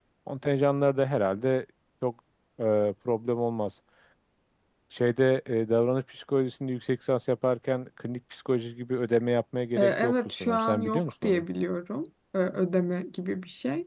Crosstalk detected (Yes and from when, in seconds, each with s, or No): Yes, from 9.8 s